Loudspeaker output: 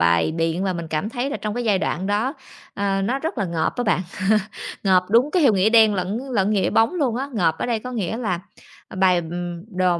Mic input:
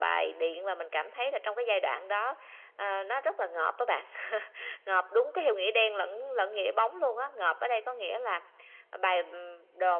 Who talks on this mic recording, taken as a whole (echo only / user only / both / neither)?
echo only